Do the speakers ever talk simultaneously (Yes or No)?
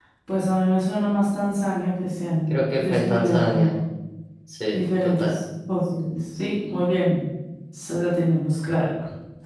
Yes